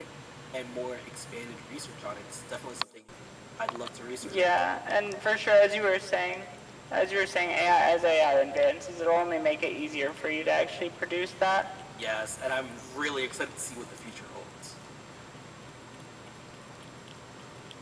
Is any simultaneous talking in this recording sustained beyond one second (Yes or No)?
No